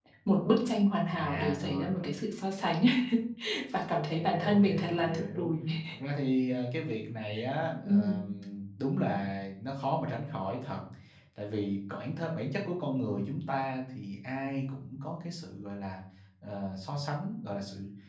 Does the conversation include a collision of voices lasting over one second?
Yes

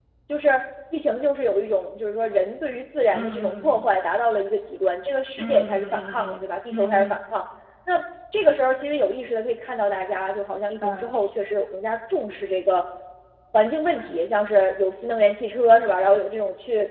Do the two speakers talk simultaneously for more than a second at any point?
Yes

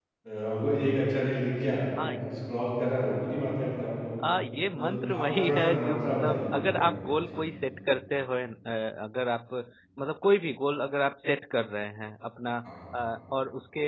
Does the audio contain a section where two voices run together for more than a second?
Yes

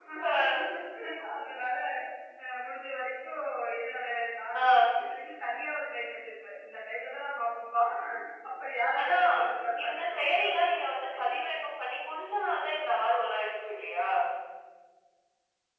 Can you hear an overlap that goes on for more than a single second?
Yes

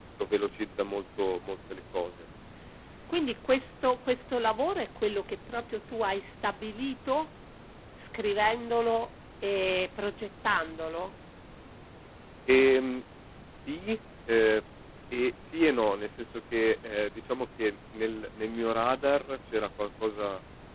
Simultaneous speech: No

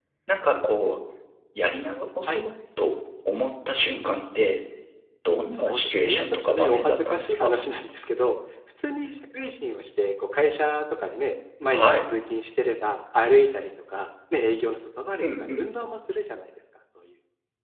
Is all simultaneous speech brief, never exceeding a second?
No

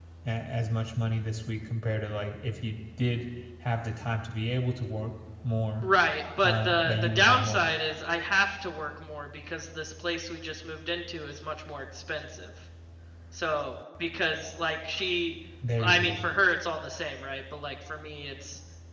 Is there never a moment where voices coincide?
No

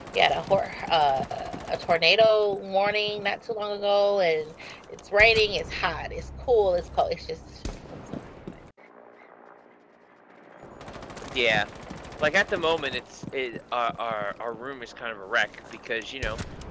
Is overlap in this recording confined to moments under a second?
Yes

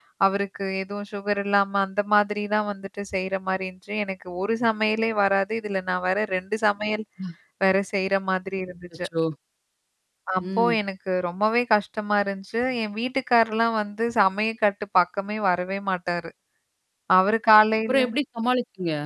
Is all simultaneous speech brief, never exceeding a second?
Yes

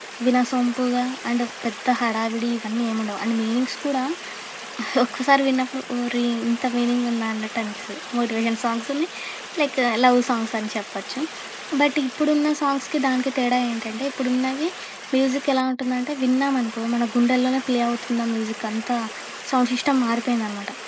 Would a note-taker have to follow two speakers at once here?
No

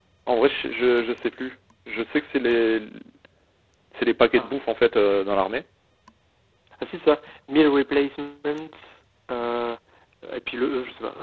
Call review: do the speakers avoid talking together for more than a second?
Yes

